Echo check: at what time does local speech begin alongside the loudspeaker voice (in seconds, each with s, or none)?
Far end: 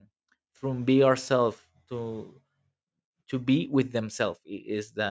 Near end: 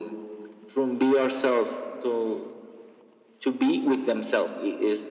none